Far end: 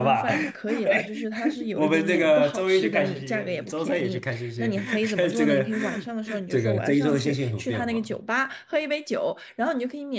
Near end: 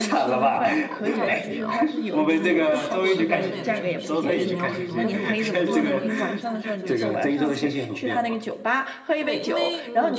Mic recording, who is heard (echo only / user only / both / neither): both